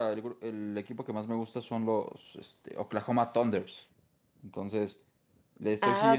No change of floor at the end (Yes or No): No